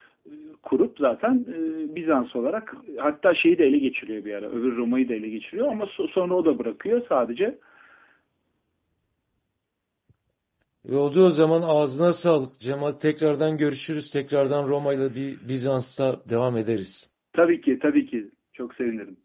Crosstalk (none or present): present